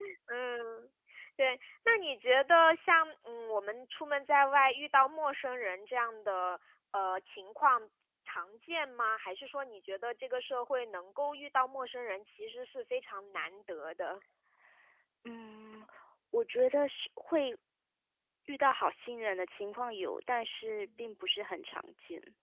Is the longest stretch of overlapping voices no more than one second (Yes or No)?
Yes